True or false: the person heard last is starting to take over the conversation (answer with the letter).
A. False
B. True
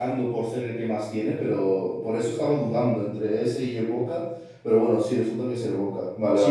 B